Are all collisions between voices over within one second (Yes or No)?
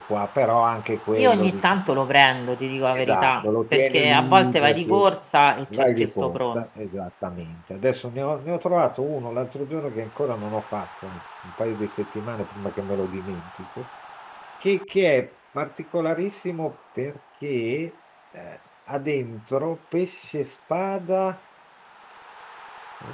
No